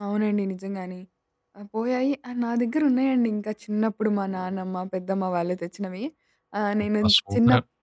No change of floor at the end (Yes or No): Yes